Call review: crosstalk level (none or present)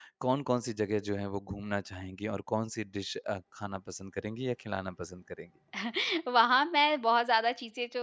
none